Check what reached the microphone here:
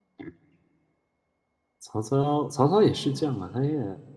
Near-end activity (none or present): present